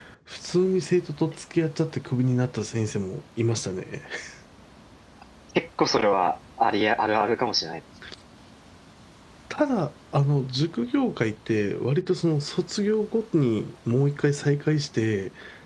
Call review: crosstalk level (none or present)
none